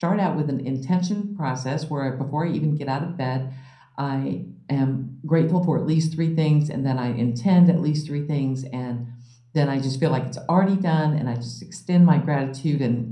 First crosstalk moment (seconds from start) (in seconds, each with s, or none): none